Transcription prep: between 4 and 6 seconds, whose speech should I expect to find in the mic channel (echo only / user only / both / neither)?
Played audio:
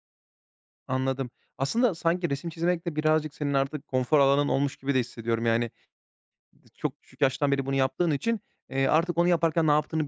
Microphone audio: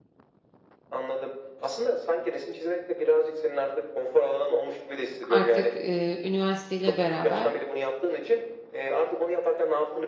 both